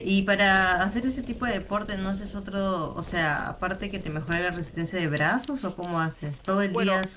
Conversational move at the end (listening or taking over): taking over